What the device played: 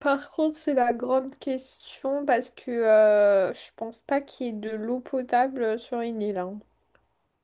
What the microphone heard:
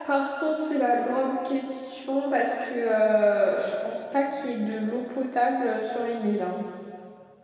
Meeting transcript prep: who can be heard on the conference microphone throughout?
echo only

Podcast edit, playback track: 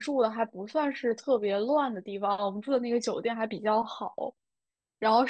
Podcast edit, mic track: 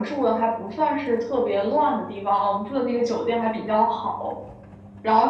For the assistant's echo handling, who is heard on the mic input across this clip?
echo only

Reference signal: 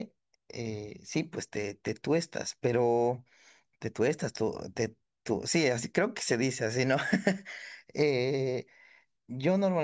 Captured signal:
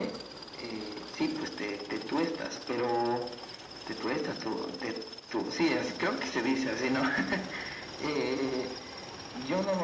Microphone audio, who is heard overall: echo only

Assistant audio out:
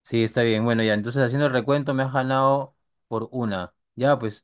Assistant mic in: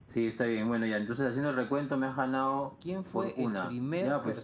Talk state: both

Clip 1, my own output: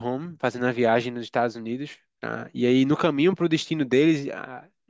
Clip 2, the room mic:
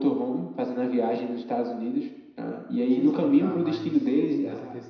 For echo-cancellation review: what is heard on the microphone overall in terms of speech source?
both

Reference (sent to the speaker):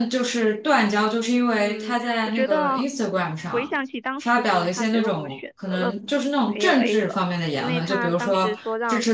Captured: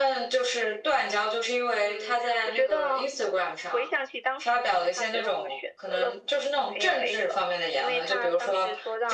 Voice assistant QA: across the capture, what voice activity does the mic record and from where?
echo only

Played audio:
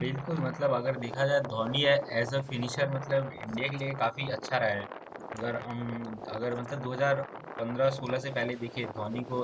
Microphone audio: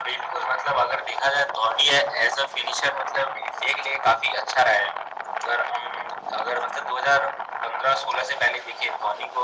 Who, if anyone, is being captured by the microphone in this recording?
echo only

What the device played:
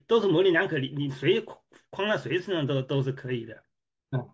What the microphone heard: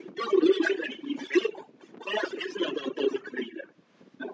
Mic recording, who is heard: echo only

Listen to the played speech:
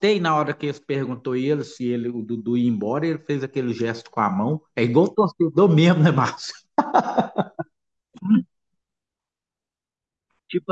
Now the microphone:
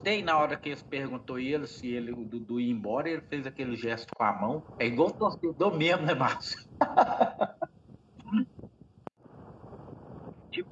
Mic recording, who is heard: echo only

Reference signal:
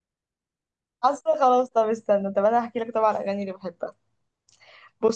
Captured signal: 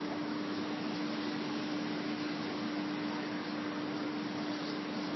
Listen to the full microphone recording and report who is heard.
neither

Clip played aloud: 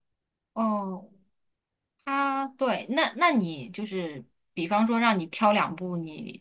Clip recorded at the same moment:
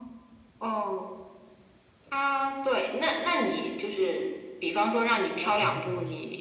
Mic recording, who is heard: both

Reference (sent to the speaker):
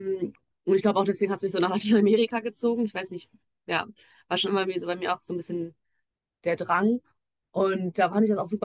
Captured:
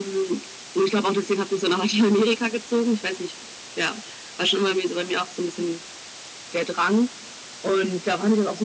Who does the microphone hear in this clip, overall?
echo only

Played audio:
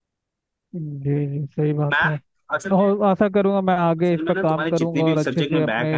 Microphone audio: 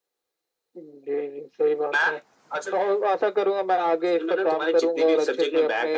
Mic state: echo only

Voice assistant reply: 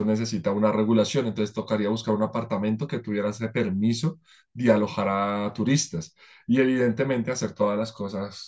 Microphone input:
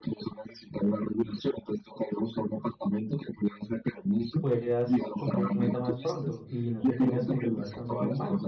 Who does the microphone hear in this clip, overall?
both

